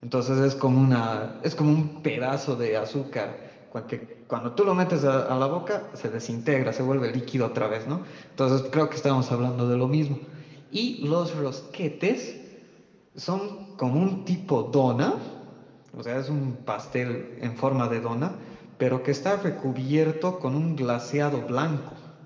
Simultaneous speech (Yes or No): No